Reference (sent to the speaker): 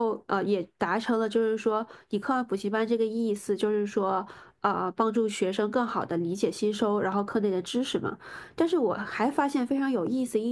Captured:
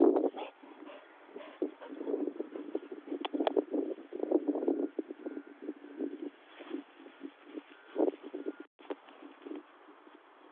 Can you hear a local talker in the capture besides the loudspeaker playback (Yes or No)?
No